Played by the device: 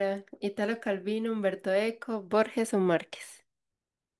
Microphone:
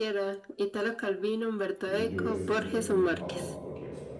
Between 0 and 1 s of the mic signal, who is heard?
echo only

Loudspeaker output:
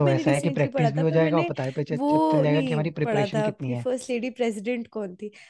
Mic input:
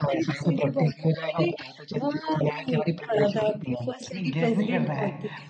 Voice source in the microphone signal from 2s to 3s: echo only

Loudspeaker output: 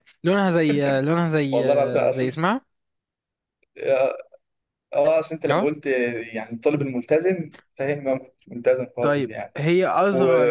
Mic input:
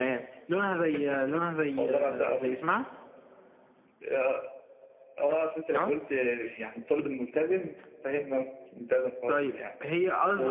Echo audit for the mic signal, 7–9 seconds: echo only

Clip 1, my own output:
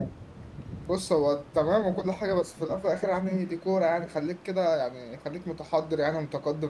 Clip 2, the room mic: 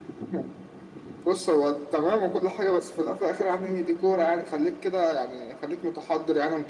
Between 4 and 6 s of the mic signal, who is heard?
echo only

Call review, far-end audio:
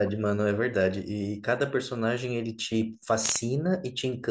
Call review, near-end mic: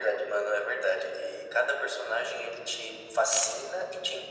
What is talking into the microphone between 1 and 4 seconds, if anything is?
echo only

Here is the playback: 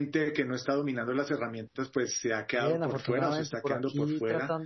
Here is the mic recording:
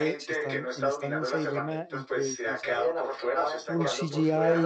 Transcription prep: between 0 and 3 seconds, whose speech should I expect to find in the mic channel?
both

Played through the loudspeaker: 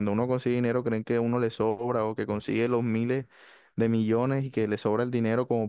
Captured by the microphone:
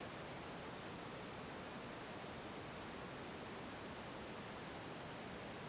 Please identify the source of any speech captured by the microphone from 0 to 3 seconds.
neither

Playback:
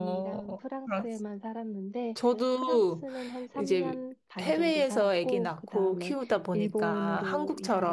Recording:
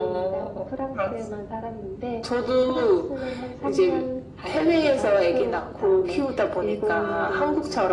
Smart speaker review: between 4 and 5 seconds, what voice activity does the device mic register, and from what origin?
echo only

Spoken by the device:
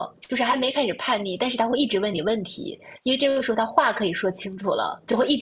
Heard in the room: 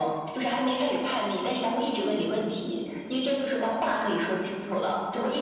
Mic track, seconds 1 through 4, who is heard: echo only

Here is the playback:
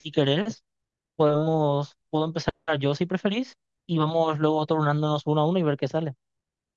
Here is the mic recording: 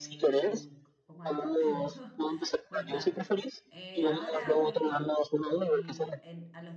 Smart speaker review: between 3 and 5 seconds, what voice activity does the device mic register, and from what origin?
both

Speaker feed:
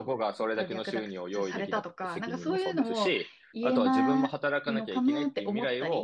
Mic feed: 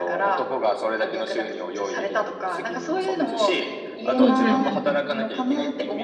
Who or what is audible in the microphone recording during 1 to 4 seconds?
echo only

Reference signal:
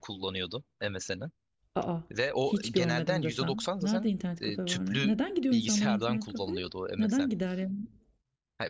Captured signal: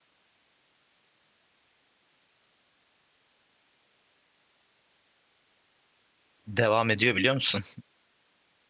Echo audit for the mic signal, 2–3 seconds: neither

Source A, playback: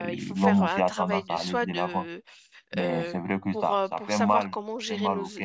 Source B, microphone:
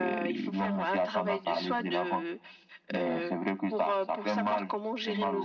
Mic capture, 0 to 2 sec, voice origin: echo only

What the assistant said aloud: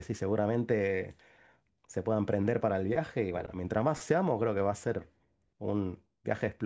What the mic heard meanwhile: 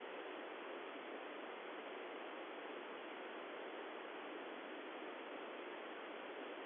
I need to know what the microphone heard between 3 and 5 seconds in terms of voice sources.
neither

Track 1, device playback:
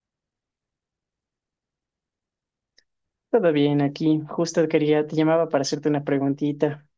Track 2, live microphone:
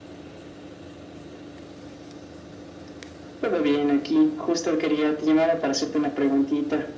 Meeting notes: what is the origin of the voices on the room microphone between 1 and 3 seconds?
neither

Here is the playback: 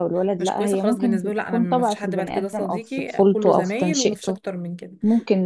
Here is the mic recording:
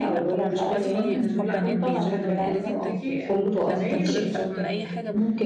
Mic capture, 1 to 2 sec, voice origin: both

